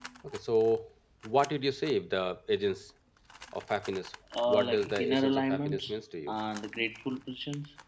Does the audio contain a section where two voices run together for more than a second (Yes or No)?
Yes